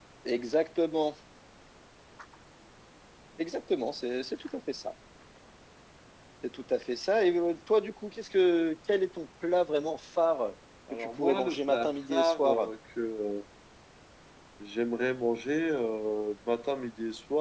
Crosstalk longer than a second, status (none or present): present